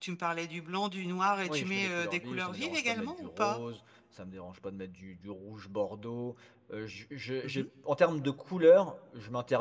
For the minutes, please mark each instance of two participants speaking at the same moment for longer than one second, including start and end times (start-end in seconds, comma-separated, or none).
1.4-3.6